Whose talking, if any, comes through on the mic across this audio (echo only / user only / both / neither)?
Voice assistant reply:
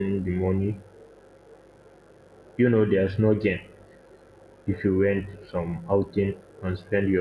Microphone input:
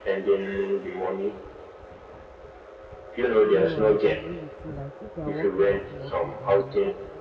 both